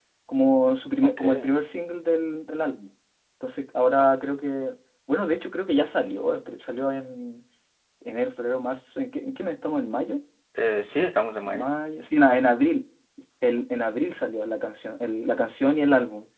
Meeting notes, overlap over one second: none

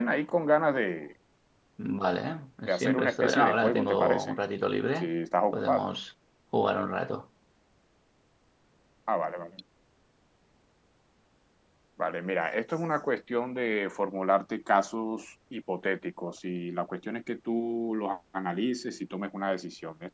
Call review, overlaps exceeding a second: present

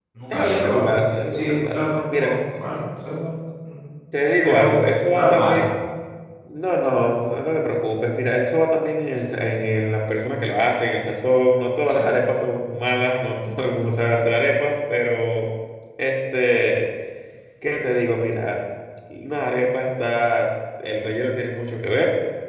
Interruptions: present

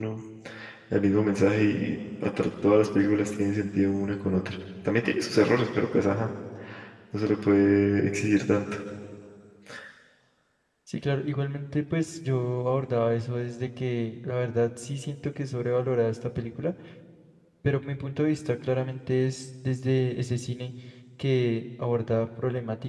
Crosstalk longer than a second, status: none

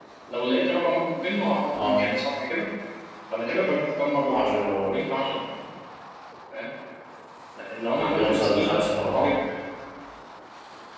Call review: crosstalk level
present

